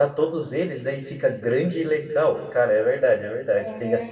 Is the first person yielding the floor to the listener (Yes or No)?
No